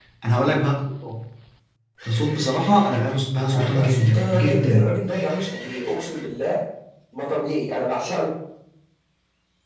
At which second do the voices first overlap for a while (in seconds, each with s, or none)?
3.4 s